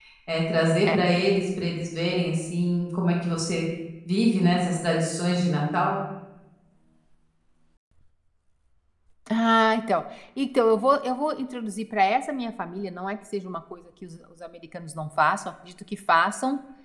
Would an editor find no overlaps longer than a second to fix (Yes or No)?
Yes